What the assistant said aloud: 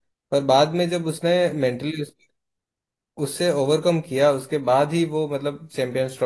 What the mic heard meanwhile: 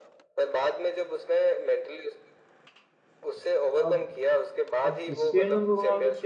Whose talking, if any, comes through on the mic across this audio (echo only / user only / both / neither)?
both